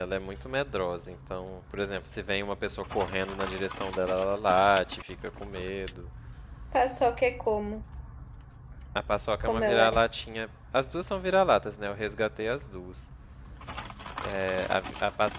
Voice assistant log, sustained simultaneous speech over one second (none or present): none